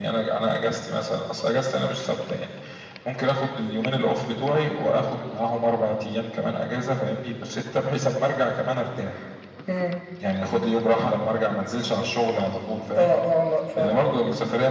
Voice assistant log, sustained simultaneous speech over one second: none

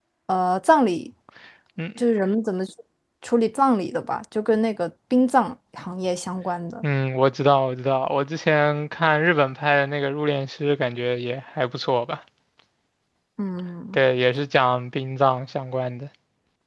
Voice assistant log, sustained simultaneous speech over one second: none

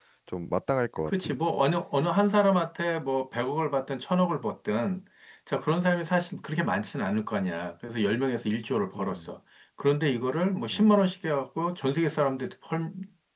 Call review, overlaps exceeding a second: none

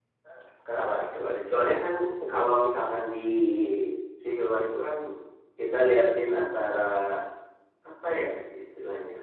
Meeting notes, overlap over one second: none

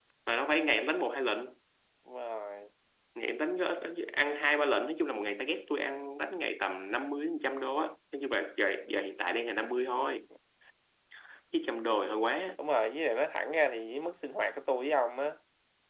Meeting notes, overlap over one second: none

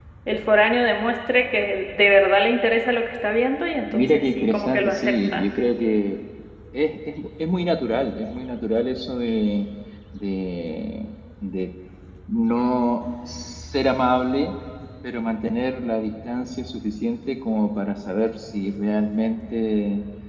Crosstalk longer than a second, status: present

